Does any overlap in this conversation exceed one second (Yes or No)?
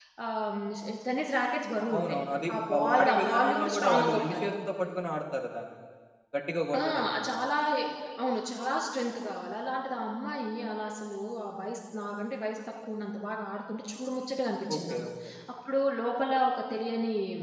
Yes